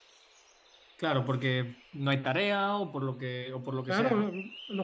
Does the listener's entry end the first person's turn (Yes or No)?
Yes